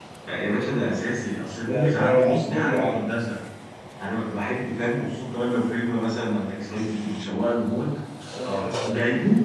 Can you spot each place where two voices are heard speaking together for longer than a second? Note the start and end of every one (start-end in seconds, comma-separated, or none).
1.7-3.0